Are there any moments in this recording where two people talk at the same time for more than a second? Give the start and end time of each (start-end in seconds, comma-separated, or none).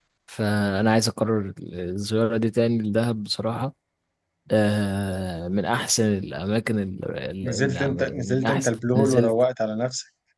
7.4-9.3